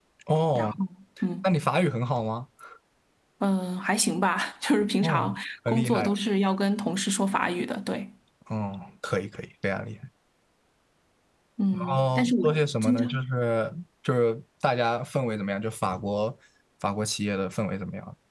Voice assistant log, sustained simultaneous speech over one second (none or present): present